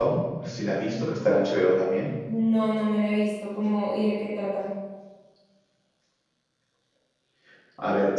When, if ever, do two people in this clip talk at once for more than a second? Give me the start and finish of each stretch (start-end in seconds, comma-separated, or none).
none